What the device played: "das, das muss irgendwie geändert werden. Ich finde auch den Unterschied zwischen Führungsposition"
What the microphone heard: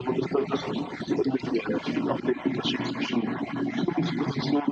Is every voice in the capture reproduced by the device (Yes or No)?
Yes